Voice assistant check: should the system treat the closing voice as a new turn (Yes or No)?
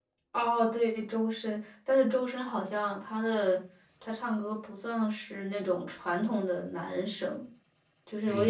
Yes